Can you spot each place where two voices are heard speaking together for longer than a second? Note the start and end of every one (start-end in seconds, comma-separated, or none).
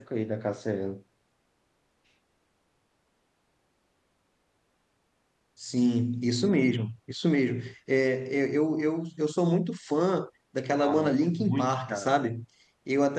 10.8-12.1